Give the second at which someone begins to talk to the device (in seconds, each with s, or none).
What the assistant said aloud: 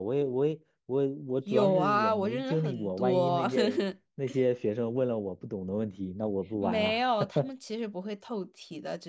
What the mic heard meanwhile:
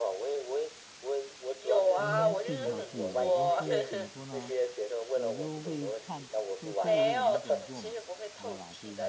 1.9 s